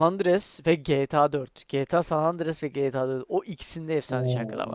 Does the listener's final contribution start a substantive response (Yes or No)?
Yes